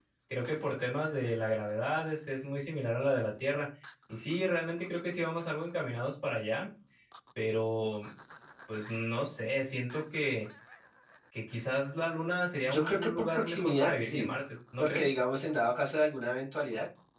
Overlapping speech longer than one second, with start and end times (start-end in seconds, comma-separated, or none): 12.7-14.3